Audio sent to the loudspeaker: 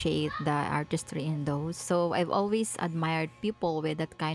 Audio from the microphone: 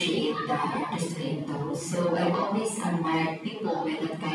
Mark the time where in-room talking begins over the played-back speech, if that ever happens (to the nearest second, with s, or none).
none